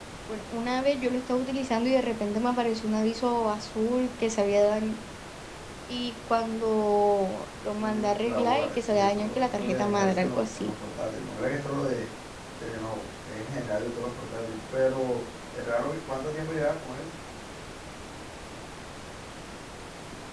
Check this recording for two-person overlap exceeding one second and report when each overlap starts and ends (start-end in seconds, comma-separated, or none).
7.8-10.7